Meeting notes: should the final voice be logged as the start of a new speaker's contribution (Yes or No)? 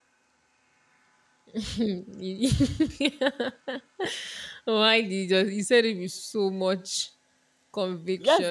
Yes